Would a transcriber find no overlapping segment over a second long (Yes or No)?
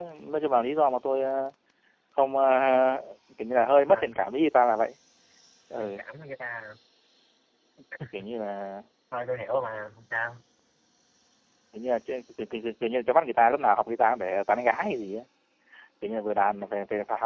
Yes